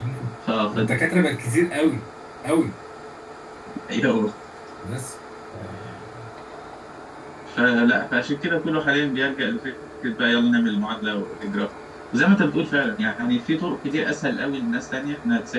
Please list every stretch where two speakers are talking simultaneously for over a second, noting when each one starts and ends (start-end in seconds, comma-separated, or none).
none